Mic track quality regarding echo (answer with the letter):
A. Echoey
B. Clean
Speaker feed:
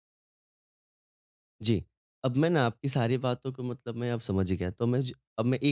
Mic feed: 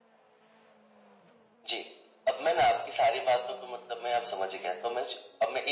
A